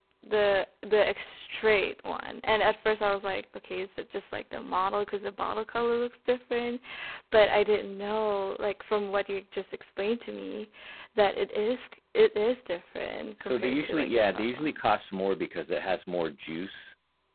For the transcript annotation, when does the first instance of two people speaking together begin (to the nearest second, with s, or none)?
13 s